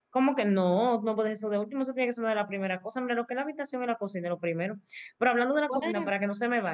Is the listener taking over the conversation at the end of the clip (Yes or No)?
No